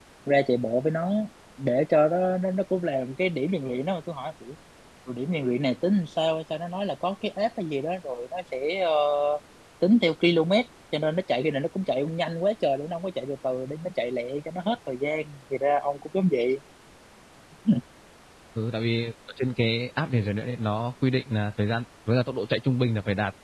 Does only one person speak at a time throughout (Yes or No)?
Yes